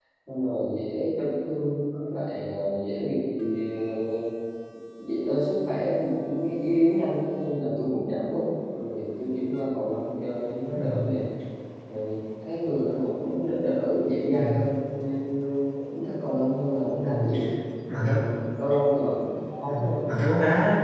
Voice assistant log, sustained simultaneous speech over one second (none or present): none